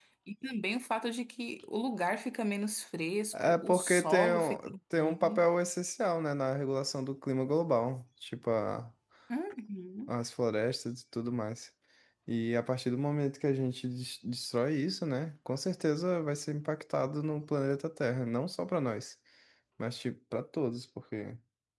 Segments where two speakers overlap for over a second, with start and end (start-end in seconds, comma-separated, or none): 3.3-5.5